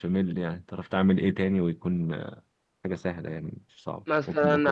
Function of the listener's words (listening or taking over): taking over